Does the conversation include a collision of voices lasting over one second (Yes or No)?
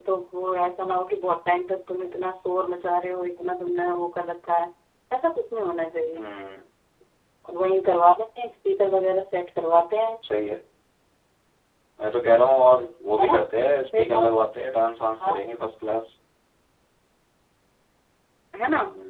No